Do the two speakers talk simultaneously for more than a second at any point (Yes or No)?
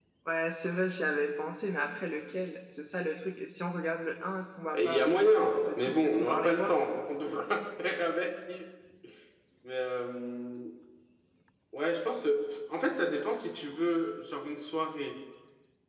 Yes